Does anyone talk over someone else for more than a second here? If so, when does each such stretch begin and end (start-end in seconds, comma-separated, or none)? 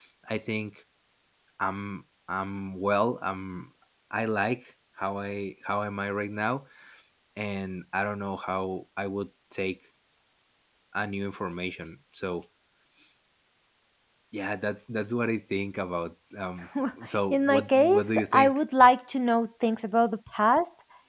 17.3-18.6